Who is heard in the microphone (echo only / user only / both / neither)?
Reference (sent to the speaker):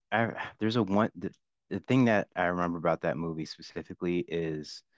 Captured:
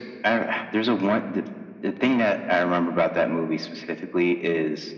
echo only